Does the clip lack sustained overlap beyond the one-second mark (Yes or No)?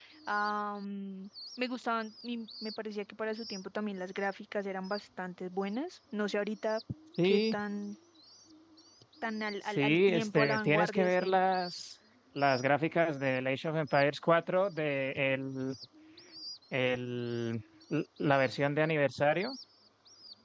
No